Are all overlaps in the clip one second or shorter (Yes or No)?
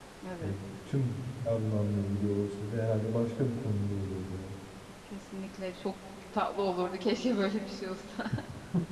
Yes